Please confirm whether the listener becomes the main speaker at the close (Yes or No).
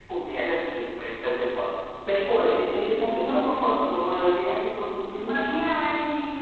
Yes